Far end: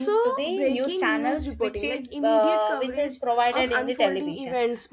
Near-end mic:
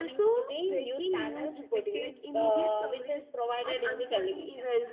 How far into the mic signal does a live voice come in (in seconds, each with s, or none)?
none